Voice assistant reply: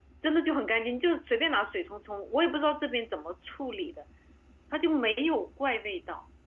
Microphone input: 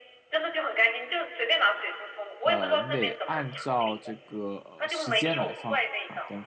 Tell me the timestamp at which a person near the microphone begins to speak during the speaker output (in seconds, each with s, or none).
2.4 s